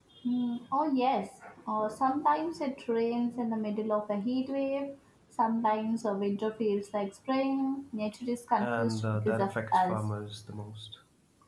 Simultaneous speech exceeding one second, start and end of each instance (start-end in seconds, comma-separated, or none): 8.6-10.0